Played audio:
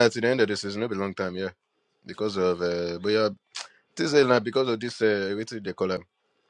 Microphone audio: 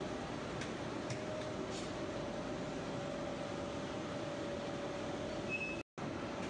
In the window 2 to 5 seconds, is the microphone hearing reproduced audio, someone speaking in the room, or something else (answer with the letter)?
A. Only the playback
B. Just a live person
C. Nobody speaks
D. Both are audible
C